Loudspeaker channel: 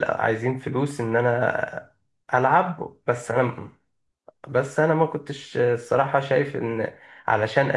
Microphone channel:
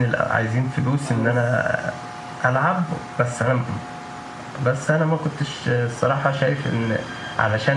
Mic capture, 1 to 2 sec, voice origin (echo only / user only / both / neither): both